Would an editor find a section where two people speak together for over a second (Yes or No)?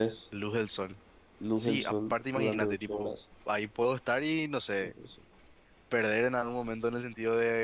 Yes